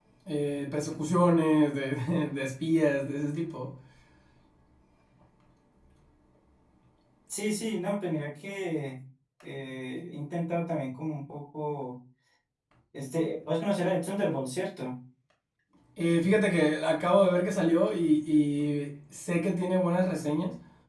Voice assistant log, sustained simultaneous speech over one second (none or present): none